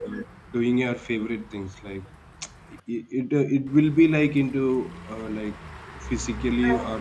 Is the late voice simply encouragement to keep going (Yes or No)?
Yes